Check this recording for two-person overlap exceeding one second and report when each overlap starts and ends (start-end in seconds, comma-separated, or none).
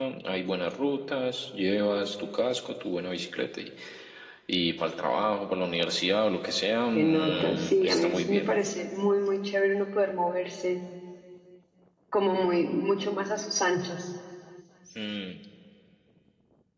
7.0-8.5